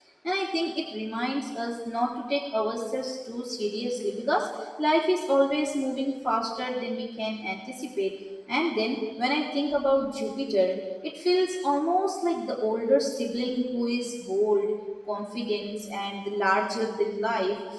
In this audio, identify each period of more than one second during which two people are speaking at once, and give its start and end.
none

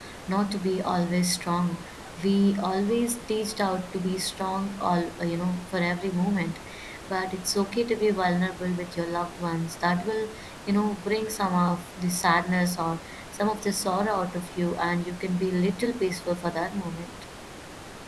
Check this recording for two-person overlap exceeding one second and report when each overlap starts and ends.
none

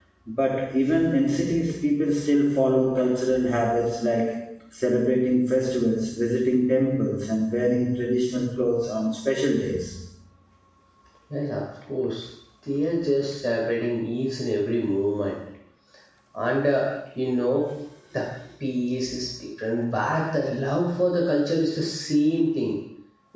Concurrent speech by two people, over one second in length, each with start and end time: none

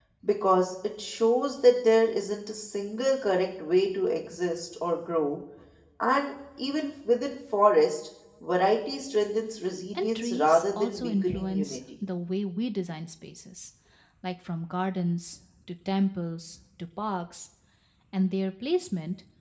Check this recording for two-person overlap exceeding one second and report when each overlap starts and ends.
9.9-11.8

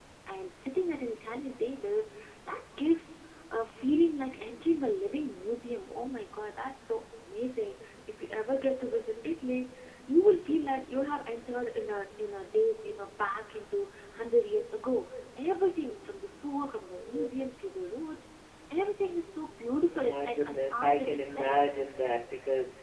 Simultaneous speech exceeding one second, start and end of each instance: 19.9-21.6

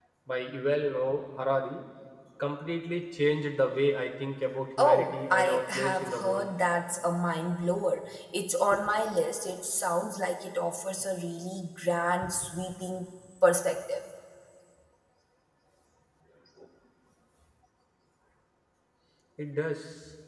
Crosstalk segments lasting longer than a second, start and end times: 4.8-6.5

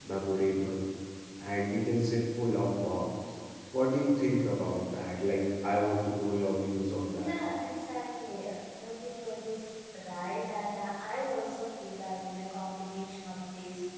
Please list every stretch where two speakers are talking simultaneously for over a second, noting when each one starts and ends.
none

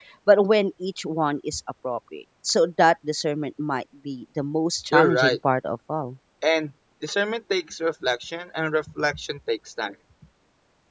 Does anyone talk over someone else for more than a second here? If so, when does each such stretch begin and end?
none

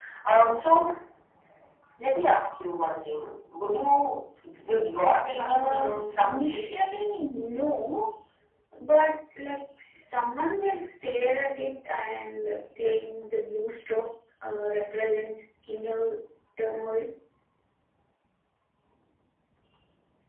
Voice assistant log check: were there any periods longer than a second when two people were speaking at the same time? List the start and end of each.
5.4-6.7

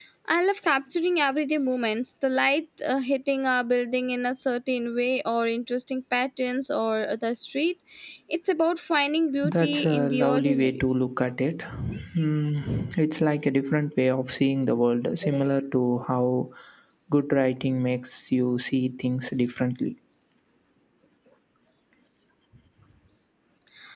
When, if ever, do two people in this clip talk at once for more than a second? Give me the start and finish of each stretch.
9.4-10.8

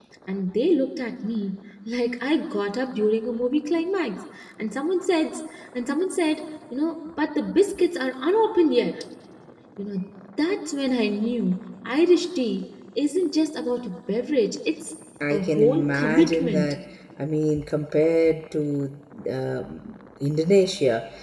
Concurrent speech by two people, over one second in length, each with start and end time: 15.3-16.7

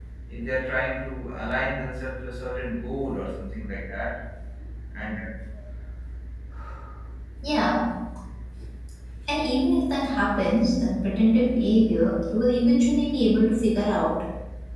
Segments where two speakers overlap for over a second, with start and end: none

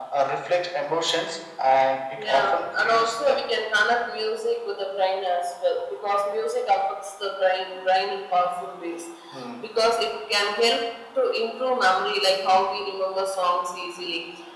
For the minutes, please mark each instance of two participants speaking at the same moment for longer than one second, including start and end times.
2.2-3.4

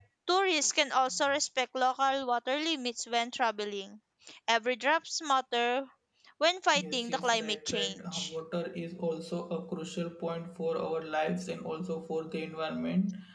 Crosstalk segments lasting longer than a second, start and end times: 6.8-8.3

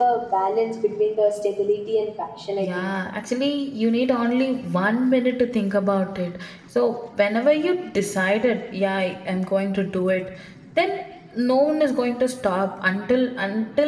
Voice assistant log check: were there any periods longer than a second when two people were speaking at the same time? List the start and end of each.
none

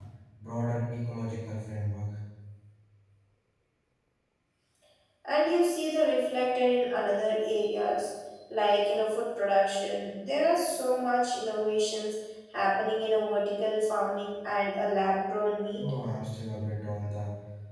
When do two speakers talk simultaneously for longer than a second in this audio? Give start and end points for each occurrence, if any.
none

